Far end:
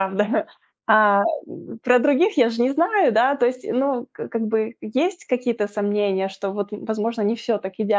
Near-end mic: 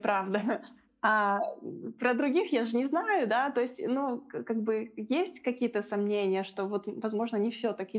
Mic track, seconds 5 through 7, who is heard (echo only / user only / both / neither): echo only